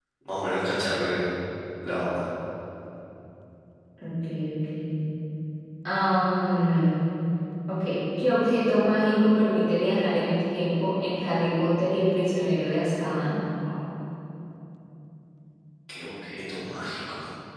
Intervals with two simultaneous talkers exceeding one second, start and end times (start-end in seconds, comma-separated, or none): none